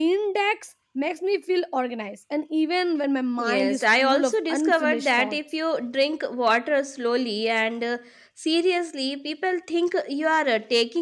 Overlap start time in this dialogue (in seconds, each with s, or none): 3.4 s